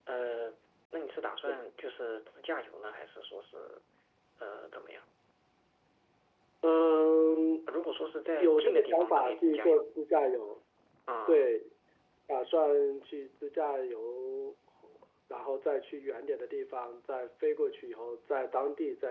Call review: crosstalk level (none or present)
present